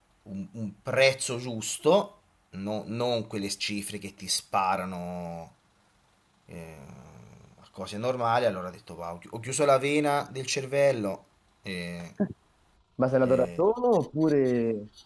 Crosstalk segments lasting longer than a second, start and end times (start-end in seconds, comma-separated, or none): none